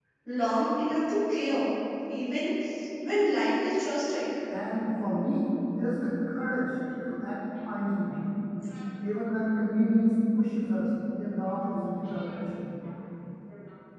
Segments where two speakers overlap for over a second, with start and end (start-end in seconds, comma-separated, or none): none